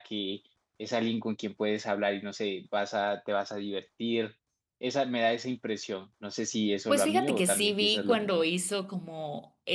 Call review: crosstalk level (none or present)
present